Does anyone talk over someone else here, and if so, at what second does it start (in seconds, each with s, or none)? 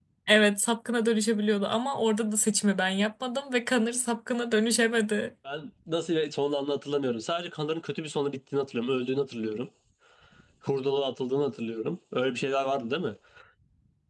none